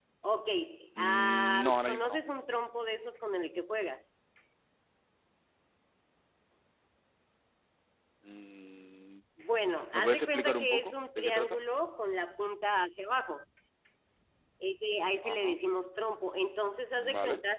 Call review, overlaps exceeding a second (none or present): present